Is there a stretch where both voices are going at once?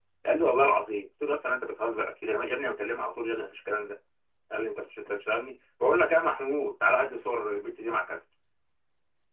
No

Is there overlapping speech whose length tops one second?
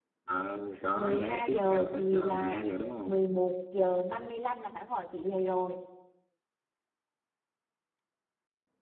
Yes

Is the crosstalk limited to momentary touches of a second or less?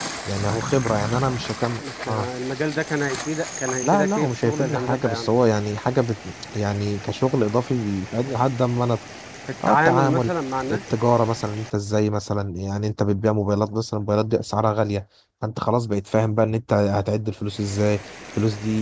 No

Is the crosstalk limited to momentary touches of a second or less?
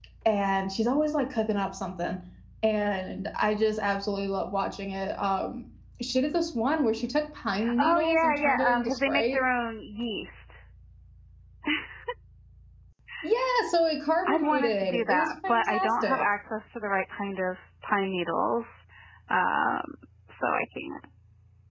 No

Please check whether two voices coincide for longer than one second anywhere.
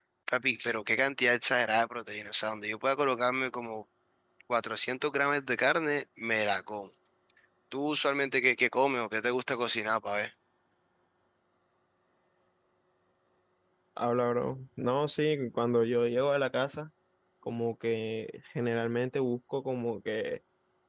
No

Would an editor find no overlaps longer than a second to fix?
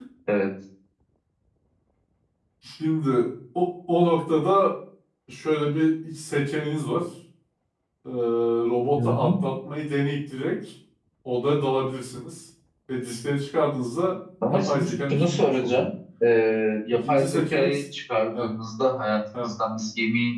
No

